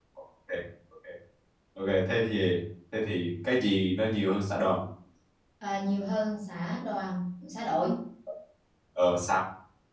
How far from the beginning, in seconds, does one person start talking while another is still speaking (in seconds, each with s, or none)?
none